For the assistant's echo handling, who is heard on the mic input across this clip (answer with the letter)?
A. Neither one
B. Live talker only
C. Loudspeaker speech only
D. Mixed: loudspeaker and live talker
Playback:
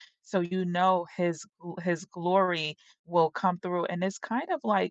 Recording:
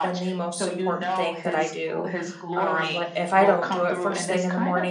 D